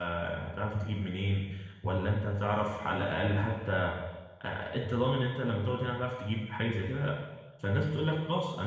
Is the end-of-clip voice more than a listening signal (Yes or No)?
No